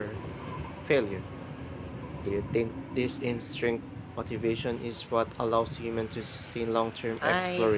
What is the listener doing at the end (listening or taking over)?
taking over